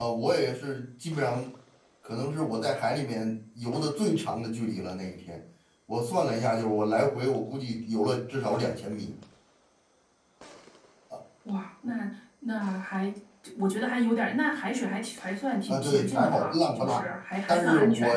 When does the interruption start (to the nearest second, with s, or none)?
16 s